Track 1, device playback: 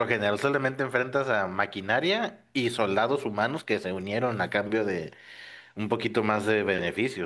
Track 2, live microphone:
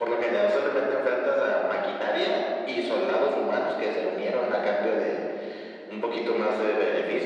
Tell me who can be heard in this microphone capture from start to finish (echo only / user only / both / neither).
echo only